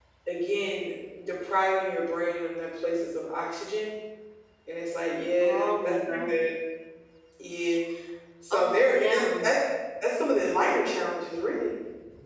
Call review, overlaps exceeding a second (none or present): present